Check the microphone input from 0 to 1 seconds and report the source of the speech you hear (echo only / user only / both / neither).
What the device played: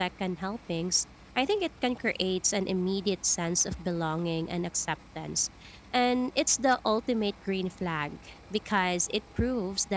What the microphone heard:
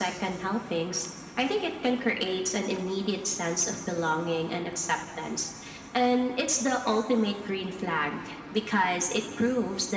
echo only